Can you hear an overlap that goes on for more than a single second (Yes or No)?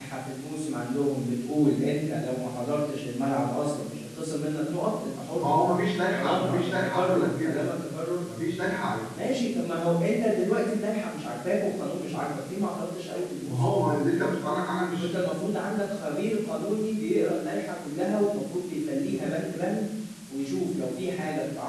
Yes